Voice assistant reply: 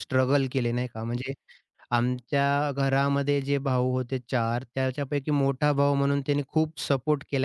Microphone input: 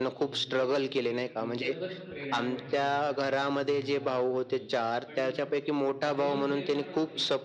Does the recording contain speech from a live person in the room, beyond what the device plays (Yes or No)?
Yes